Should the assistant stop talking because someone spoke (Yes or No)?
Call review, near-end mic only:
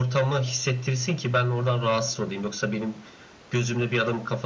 No